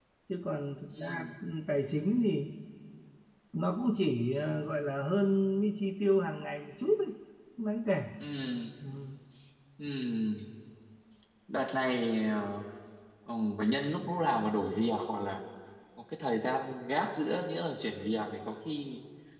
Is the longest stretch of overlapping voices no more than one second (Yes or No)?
Yes